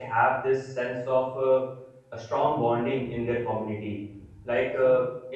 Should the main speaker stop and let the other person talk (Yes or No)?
No